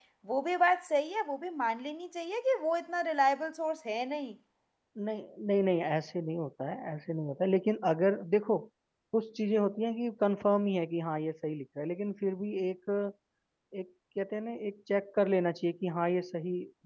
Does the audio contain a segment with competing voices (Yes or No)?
No